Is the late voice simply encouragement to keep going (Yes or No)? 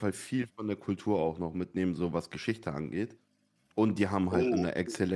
Yes